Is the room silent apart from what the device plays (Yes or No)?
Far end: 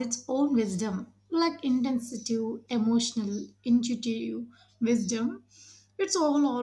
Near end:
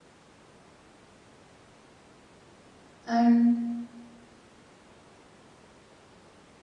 No